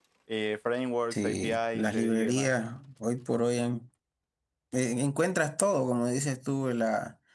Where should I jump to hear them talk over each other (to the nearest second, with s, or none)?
1 s